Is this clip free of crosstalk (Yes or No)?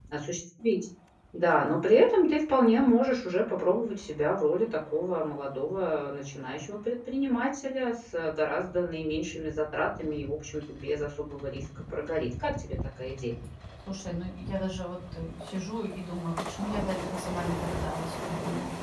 Yes